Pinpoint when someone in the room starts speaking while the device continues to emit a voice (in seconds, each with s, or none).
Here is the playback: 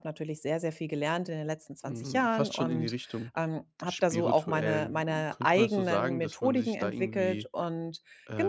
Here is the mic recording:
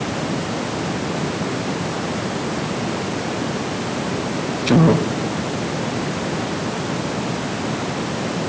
4.6 s